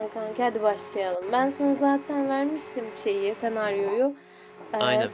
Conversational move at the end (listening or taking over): listening